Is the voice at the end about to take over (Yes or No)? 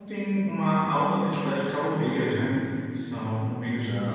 No